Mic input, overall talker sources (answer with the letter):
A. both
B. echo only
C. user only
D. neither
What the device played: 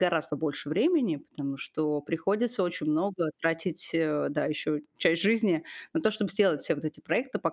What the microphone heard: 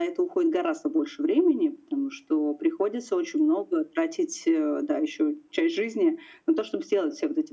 B